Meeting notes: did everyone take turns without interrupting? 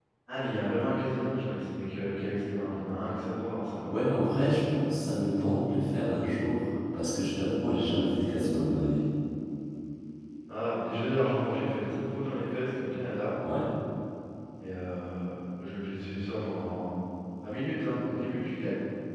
Yes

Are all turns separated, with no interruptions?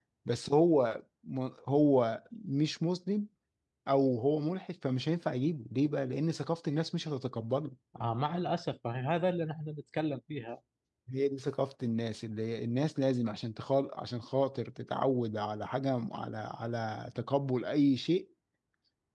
Yes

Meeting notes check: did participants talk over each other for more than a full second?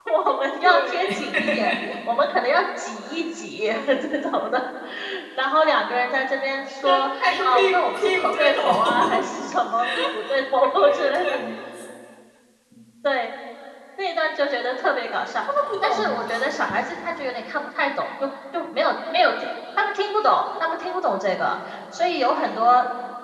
Yes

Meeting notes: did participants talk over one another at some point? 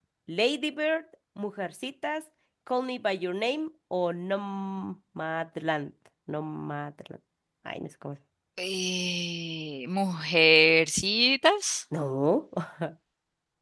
No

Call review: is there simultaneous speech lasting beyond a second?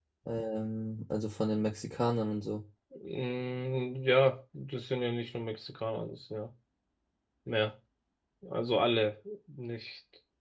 No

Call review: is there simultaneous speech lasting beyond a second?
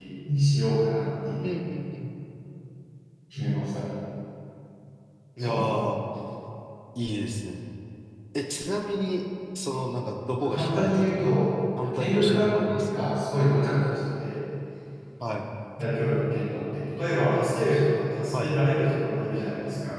Yes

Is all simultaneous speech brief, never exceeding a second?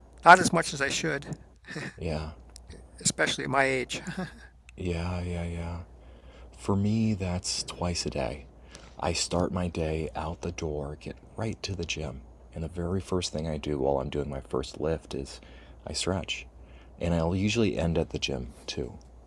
Yes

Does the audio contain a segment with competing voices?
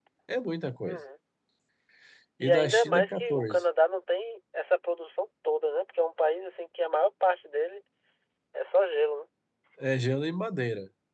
Yes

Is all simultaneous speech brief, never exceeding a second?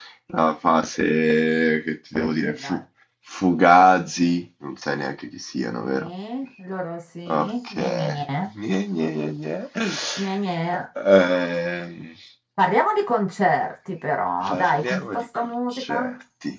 No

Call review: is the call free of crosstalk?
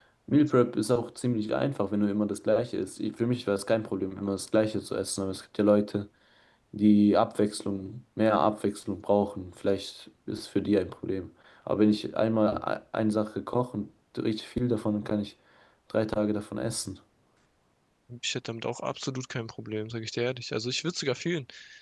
Yes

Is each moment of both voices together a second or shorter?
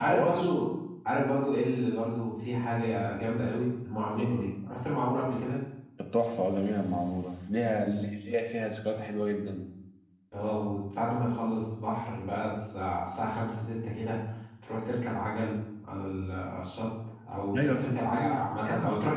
No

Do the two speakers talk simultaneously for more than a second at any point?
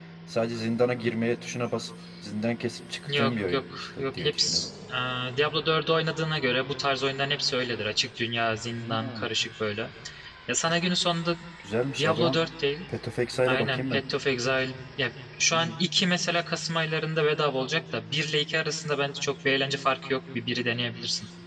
Yes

